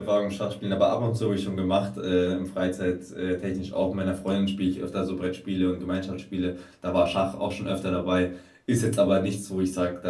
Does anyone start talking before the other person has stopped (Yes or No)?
No